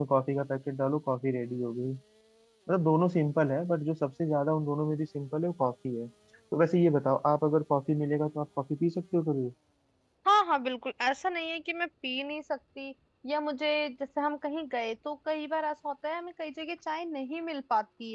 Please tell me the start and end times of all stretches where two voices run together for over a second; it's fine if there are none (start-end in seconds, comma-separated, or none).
none